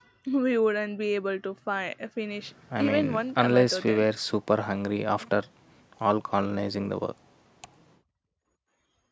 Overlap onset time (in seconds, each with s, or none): 2.7 s